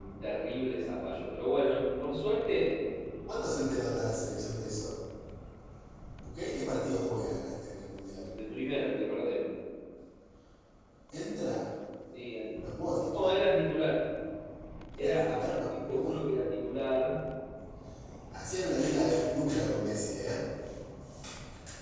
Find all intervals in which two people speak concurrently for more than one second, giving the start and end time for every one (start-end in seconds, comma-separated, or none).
15.0-16.2